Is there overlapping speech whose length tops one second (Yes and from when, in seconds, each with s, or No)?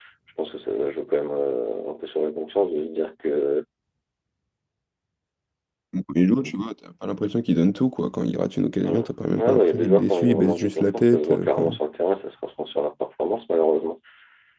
Yes, from 8.8 s